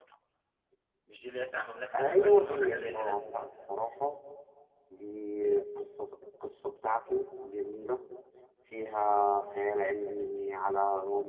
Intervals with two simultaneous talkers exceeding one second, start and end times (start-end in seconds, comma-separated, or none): 1.9-3.2